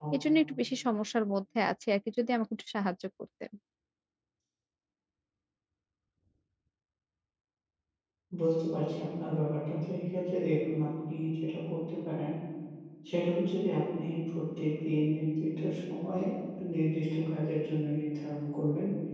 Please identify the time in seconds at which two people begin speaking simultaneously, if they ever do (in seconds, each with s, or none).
none